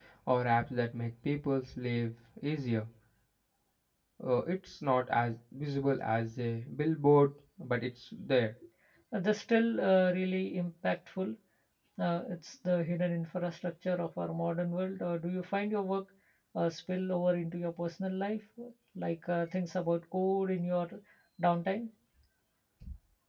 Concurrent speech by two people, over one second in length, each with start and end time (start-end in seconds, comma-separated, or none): none